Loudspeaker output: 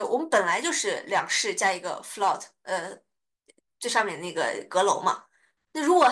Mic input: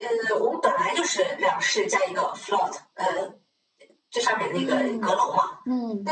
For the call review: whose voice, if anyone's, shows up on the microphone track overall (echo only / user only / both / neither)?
both